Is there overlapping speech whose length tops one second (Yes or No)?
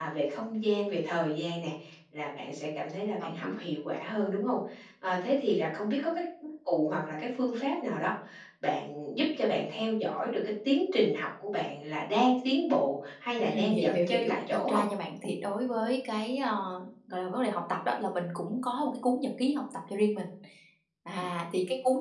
Yes